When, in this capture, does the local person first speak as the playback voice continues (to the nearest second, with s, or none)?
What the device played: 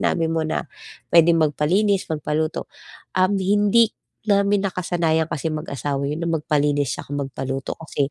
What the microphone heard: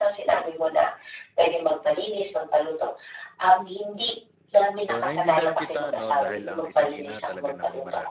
5 s